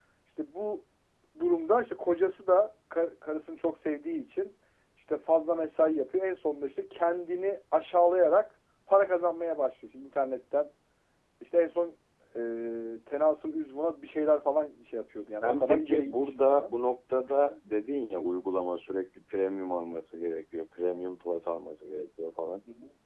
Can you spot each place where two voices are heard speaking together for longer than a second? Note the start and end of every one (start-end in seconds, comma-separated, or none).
15.4-16.7